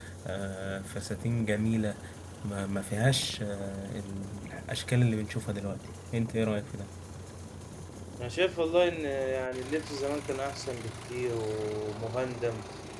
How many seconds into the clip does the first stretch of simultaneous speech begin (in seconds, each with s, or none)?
none